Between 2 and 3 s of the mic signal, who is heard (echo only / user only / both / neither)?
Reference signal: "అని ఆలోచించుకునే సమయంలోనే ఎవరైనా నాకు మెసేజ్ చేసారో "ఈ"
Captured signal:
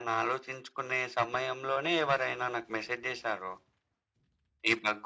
echo only